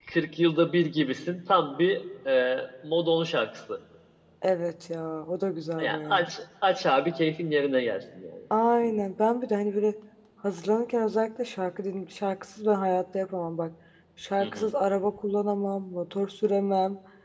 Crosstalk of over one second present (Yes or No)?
No